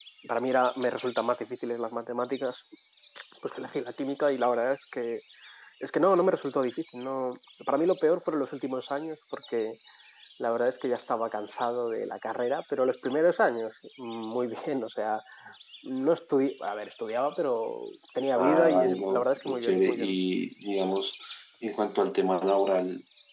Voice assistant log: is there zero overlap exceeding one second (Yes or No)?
No